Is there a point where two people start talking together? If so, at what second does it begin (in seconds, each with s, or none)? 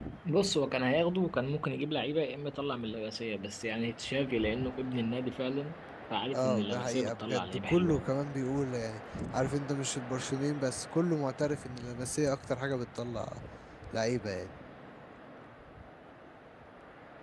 6.3 s